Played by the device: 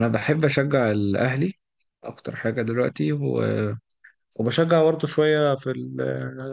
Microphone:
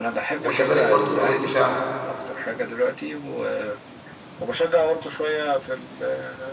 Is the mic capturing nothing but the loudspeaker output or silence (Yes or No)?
No